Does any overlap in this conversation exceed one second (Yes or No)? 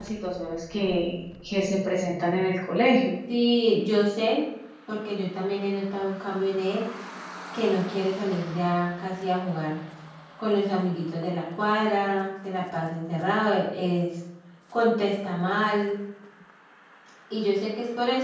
No